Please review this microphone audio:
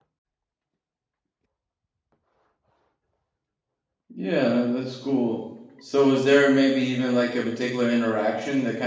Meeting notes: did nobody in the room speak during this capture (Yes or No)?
No